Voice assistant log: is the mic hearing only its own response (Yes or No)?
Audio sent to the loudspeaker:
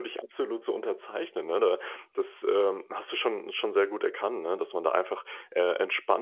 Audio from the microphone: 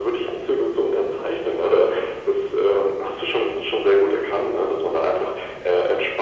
Yes